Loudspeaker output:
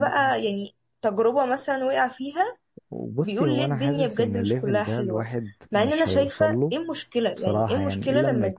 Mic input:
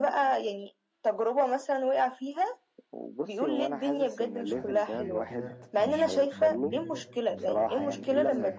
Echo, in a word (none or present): present